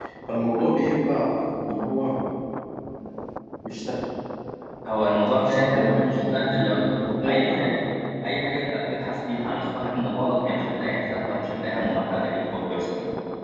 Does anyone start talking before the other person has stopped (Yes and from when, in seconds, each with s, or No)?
Yes, from 5.4 s